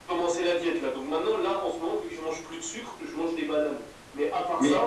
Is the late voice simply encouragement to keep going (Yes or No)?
Yes